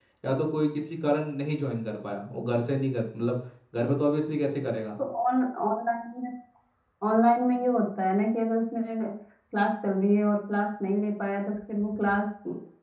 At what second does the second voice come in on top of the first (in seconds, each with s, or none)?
none